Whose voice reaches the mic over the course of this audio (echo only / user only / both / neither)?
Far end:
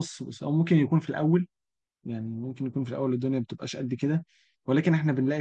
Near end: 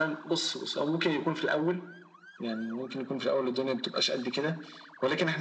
echo only